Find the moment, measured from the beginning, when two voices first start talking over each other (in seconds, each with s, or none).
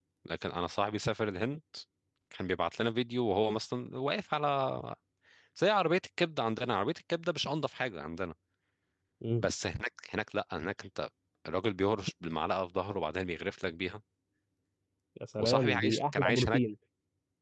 15.4 s